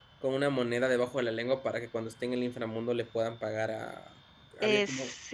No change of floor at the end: No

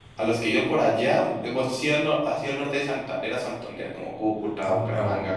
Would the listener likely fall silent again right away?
No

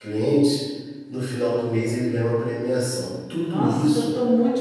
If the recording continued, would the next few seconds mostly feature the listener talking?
Yes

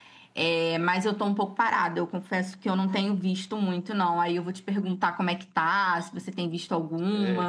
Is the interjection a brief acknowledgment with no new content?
No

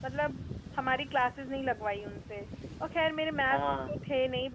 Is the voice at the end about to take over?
No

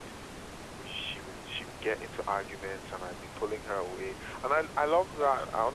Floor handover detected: No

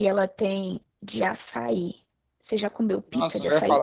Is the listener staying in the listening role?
No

